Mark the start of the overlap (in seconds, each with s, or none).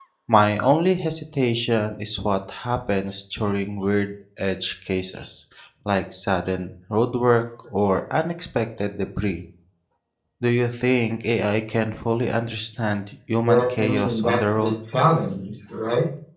13.4 s